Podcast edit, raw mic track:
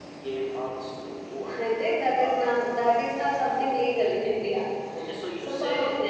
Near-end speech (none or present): none